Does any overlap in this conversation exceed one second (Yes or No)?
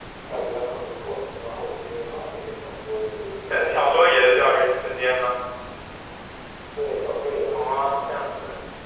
No